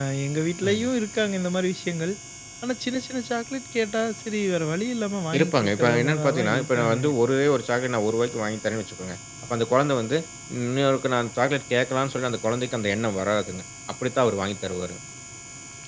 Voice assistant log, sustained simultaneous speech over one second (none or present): present